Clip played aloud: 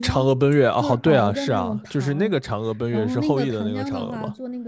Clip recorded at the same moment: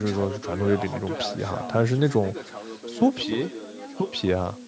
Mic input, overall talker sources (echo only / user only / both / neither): both